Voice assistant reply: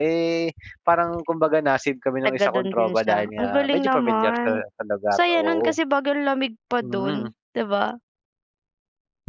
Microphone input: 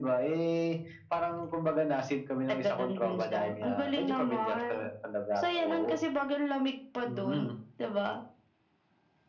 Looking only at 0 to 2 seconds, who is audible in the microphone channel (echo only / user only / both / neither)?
echo only